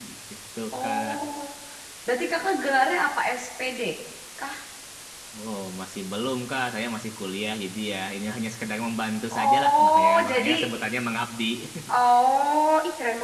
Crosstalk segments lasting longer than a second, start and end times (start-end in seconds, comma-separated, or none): 9.3-10.7